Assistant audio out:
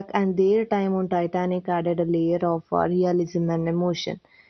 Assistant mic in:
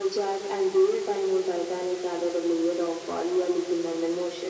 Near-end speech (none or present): none